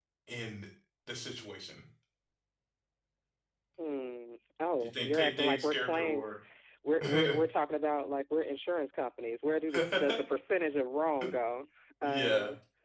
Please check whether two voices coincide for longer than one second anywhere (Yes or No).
Yes